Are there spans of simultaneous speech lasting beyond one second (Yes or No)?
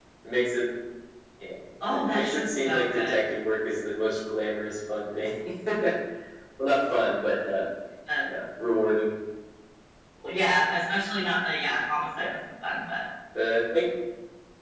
Yes